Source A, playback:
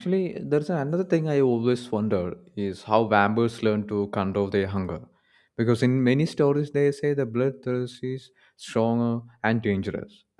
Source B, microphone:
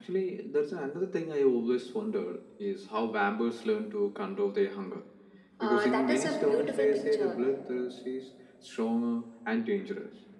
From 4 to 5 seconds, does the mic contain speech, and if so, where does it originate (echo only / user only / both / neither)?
echo only